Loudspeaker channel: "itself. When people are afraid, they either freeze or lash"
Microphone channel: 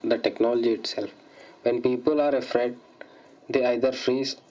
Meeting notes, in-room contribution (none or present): none